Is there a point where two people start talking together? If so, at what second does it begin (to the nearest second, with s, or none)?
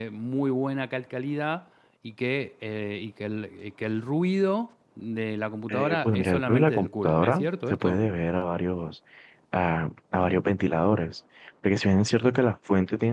6 s